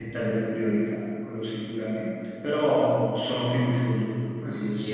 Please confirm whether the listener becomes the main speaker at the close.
Yes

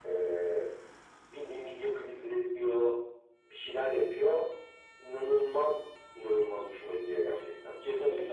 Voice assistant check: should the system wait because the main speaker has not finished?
No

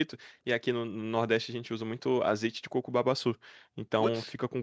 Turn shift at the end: No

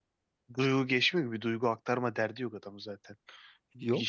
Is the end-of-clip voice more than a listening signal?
No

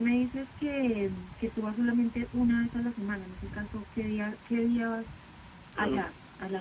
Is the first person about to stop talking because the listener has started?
Yes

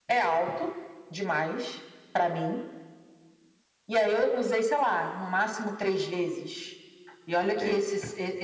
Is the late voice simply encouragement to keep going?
Yes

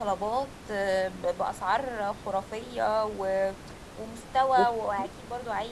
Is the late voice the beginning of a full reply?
No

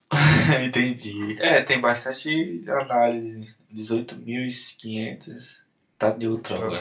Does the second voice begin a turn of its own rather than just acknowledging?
No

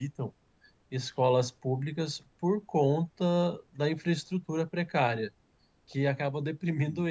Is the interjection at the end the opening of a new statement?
No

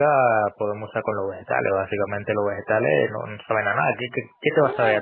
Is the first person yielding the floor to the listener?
Yes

